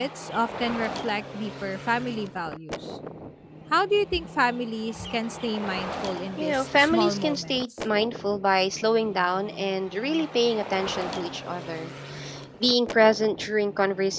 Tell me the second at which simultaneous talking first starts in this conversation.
6.4 s

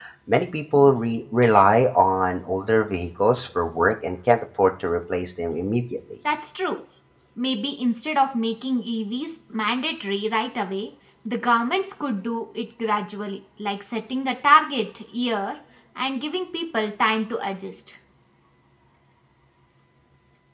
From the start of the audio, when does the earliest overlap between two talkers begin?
none

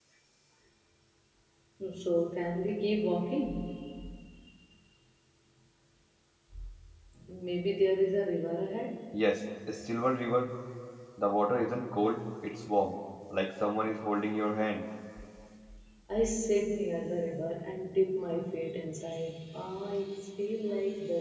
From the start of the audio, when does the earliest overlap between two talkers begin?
none

